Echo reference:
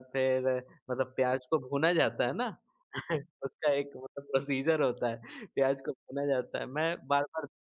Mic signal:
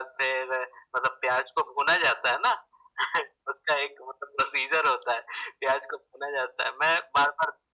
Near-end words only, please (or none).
none